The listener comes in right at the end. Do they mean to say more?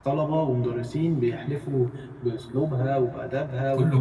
Yes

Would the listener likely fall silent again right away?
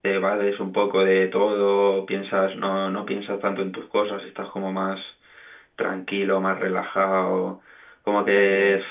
Yes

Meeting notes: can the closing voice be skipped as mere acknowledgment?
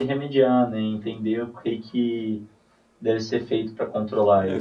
No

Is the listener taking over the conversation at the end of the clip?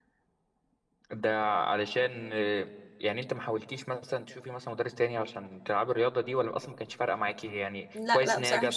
Yes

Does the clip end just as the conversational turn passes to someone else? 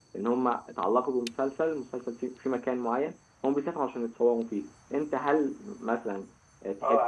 Yes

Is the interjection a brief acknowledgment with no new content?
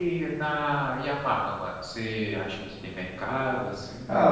No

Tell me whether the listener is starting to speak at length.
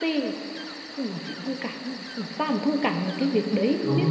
Yes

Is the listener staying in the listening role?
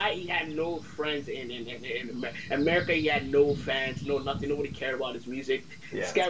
Yes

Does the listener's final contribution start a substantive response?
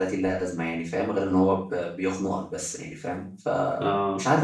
Yes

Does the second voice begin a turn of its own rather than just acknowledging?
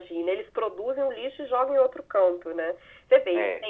No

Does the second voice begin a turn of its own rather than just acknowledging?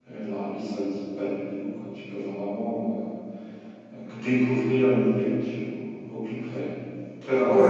Yes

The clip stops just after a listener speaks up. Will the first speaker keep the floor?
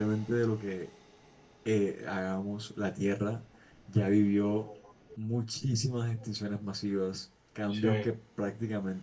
Yes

